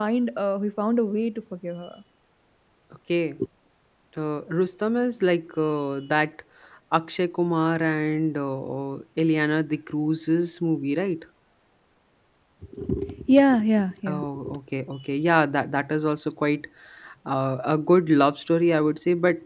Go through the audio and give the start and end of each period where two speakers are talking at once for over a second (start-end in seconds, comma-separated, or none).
none